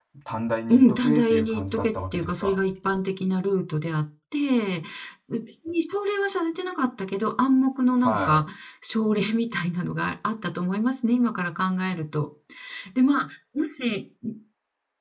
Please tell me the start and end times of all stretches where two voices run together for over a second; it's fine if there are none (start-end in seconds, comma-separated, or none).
0.7-2.6